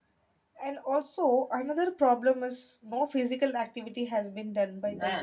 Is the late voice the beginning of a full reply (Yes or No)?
Yes